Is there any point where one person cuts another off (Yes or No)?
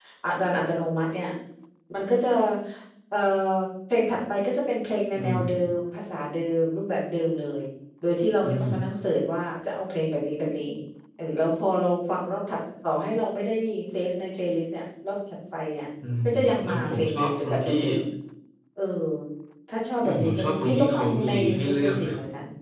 Yes